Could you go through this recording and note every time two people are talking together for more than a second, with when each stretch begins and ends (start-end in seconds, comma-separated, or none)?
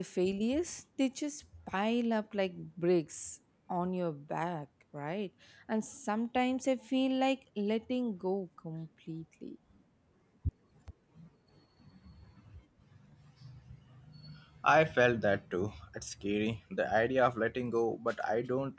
none